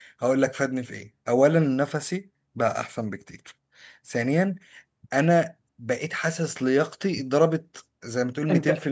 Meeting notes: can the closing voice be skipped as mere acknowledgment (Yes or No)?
No